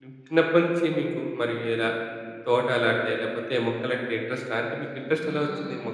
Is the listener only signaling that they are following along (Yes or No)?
No